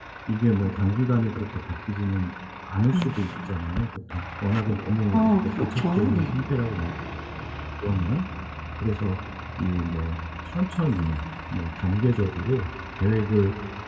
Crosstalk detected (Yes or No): Yes